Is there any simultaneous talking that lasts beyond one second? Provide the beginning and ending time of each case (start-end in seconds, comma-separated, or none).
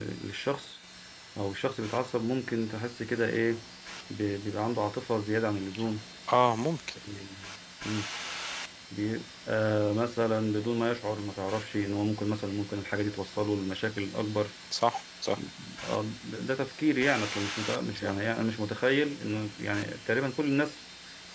none